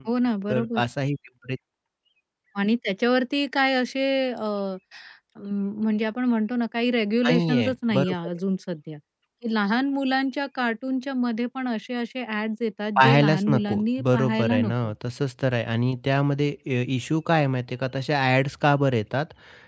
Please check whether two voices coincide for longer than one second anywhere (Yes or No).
Yes